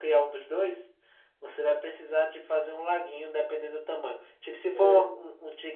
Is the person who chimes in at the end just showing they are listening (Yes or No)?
Yes